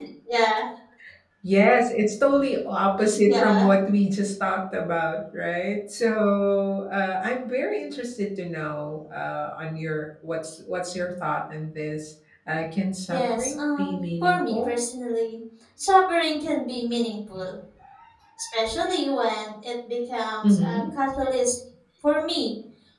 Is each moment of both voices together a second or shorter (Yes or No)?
No